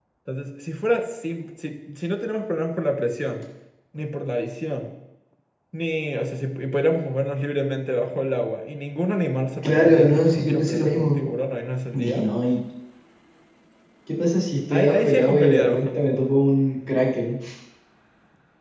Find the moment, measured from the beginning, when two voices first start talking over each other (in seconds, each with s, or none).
9.6 s